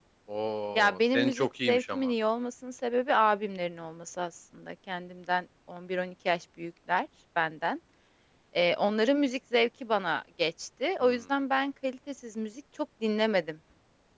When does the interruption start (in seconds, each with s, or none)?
0.8 s